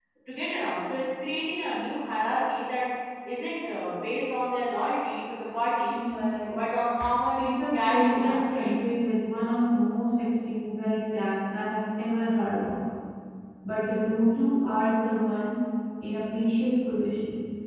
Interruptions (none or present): present